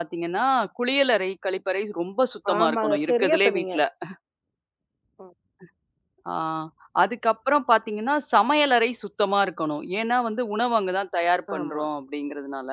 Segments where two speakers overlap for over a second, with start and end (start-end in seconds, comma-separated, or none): 2.5-3.8